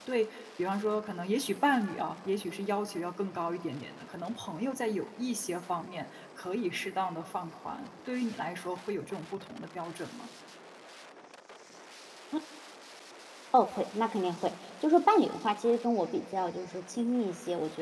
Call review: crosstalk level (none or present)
none